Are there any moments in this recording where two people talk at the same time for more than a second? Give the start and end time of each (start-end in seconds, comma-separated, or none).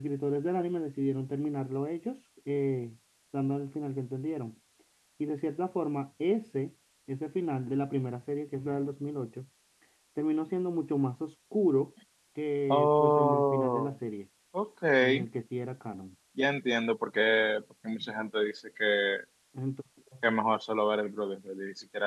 12.7-13.9